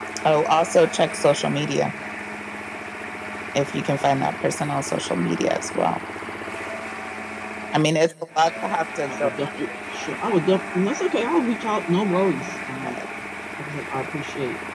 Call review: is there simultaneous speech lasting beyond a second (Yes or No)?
No